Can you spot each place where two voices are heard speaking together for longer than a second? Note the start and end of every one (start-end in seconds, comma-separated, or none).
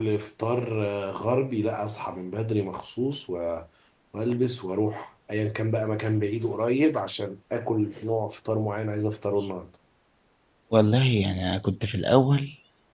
none